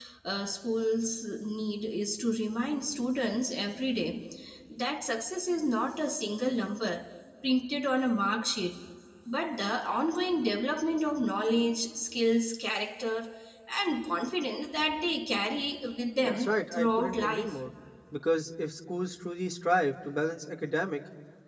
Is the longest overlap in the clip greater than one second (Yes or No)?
Yes